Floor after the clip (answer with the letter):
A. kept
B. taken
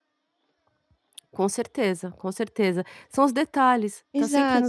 B